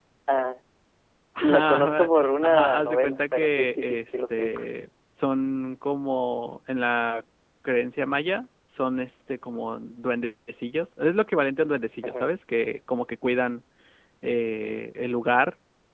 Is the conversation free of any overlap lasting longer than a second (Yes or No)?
No